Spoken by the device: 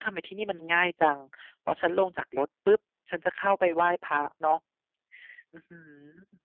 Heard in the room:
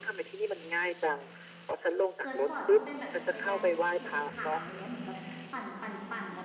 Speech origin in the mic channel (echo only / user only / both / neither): both